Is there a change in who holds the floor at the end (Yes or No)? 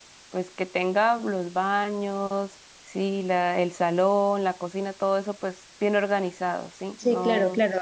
Yes